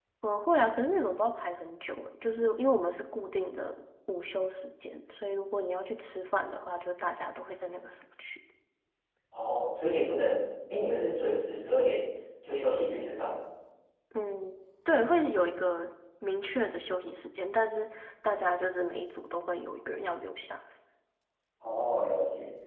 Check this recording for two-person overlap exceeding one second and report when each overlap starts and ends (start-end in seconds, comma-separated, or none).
none